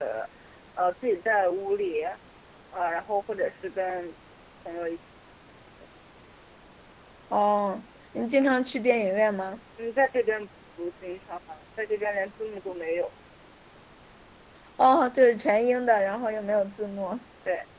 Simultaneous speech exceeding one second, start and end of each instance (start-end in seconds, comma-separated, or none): none